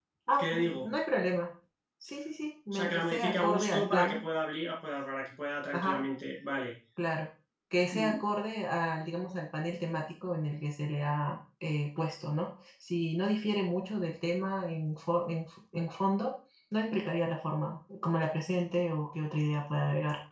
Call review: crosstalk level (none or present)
present